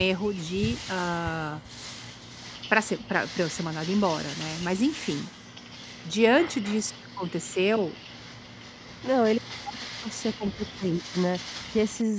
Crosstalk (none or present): none